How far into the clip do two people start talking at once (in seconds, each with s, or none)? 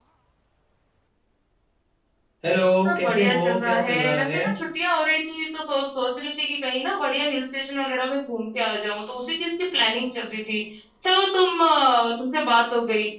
2.9 s